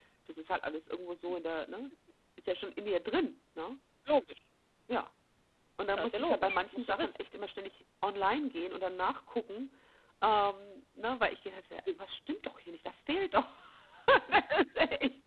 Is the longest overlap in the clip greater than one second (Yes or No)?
Yes